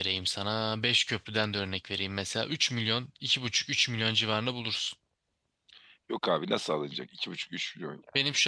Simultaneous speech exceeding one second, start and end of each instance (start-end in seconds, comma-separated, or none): none